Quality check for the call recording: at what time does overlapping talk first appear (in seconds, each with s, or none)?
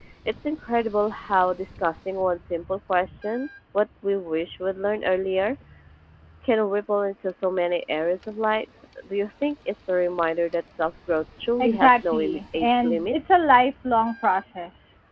11.6 s